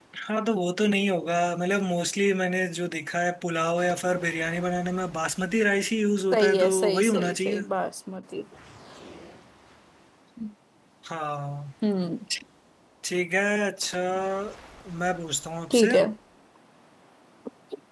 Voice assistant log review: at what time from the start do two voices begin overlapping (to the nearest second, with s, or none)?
6 s